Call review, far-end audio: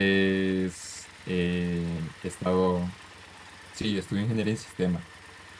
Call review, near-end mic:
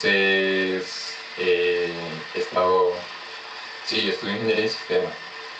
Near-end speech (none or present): none